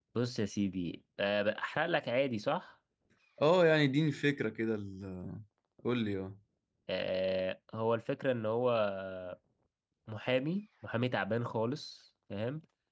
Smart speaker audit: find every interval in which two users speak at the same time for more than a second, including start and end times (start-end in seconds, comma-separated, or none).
none